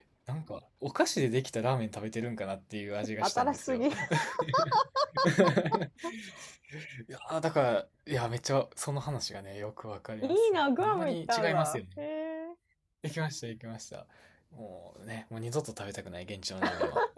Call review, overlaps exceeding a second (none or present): present